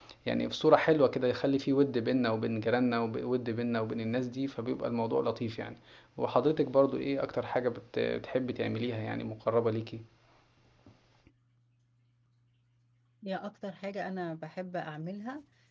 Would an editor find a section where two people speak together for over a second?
No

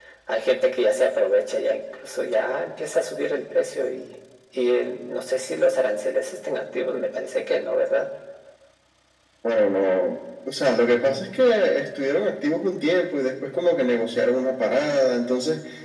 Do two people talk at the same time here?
No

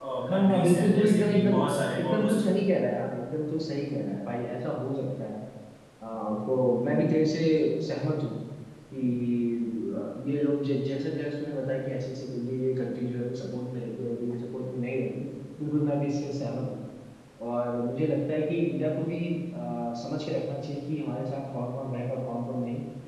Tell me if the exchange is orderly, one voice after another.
No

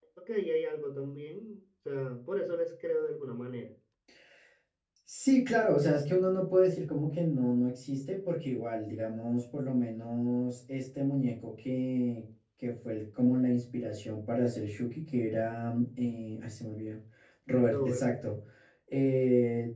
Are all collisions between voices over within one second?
Yes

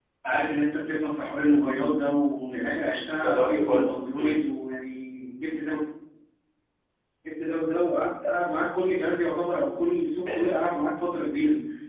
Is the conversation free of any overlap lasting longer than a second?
No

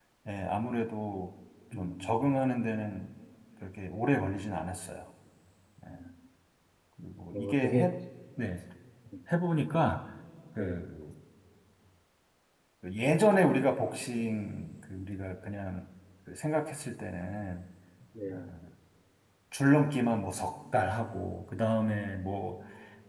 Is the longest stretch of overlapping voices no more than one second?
Yes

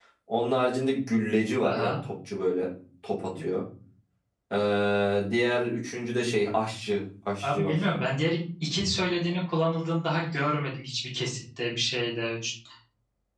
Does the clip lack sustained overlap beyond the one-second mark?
Yes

